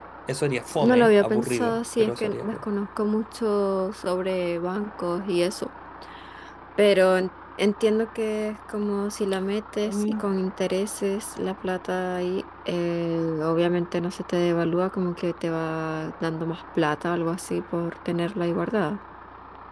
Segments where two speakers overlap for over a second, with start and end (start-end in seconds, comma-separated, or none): 0.8-2.6